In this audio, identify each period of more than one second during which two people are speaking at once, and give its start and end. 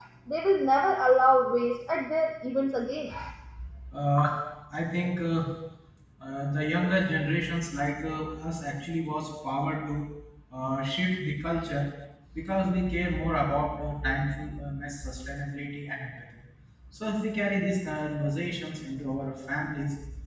none

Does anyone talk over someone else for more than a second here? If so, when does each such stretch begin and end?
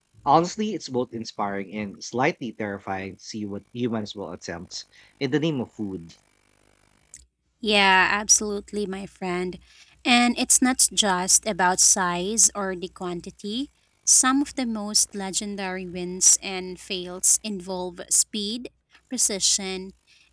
none

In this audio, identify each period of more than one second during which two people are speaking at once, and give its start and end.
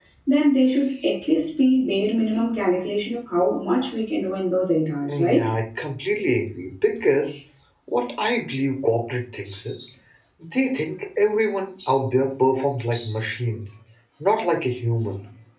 none

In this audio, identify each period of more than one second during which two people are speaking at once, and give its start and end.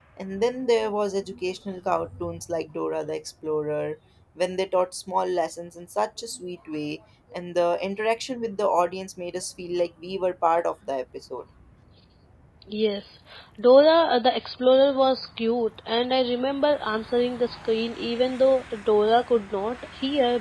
none

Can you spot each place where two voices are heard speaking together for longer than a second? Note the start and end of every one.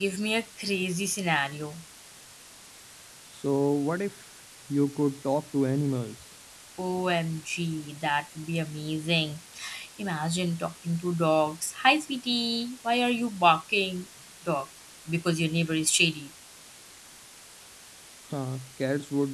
none

